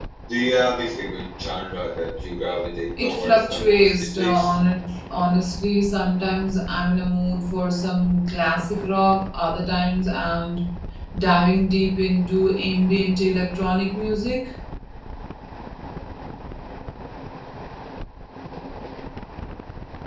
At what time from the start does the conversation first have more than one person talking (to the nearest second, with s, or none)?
3 s